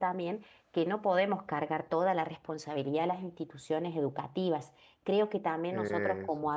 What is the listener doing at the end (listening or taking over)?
listening